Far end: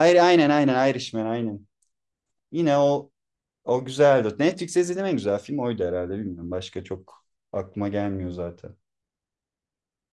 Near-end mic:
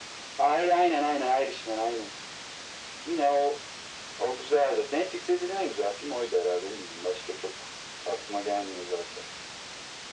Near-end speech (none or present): none